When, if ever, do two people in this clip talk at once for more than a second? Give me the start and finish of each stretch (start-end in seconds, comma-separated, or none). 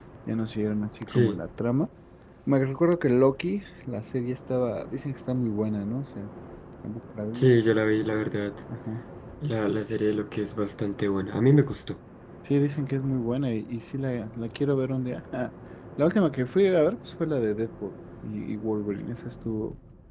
none